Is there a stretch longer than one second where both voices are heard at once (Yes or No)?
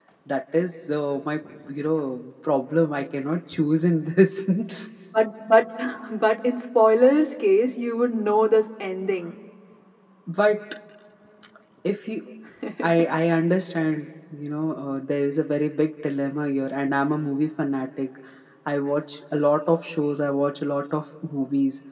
No